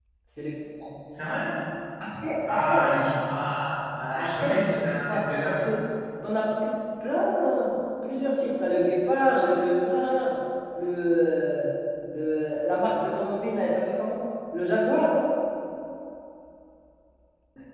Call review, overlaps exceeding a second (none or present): present